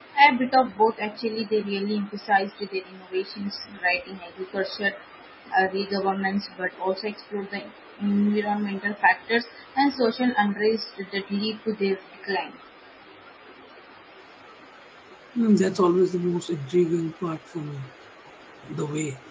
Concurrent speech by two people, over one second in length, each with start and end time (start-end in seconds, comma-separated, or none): none